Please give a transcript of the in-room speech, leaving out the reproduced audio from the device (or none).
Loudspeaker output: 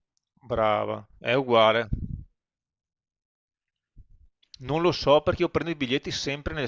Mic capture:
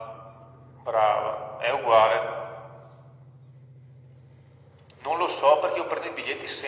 none